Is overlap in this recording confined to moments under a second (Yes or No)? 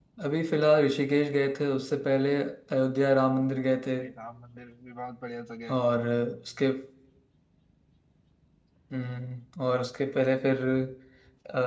Yes